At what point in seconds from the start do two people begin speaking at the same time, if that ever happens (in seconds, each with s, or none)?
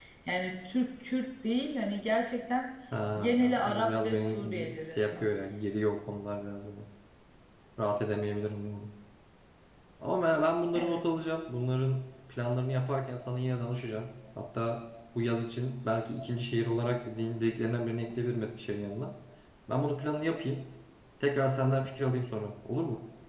3.2 s